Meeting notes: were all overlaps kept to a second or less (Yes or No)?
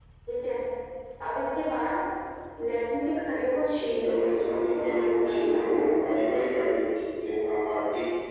No